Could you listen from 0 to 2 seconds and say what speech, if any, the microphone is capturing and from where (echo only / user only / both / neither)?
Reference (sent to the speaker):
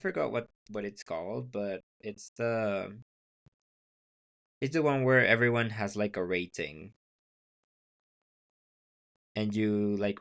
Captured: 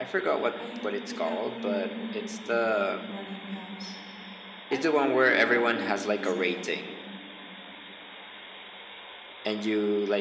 both